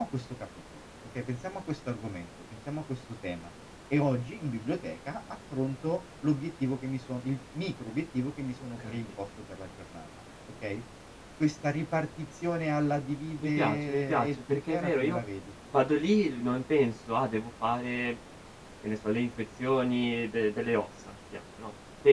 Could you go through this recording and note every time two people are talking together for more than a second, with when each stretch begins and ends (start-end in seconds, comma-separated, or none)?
13.6-15.2